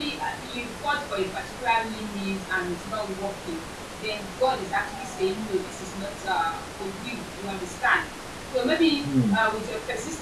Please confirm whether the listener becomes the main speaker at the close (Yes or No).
No